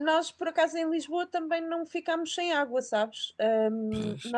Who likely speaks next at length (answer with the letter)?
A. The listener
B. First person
B